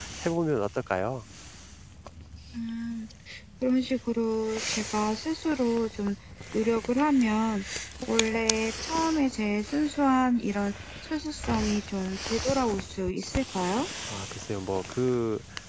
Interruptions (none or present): none